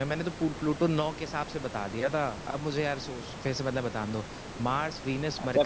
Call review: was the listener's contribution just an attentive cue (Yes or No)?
No